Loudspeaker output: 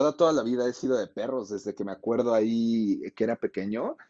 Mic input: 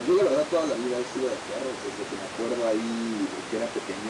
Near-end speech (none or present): none